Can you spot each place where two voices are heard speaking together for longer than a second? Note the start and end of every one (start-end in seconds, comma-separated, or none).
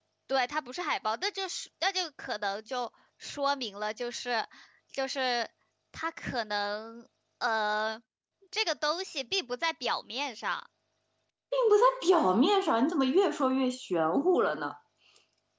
none